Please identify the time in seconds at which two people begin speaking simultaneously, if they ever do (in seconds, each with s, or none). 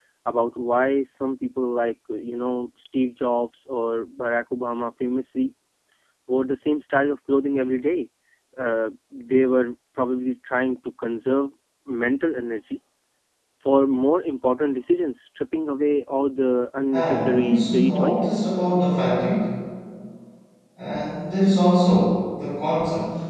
16.9 s